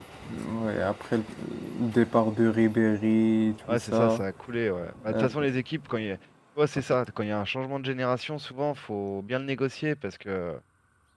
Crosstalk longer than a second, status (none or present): none